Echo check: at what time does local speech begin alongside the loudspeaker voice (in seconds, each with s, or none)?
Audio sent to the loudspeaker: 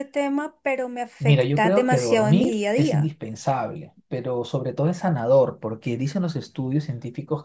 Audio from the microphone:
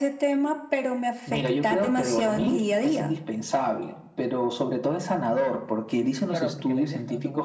6.3 s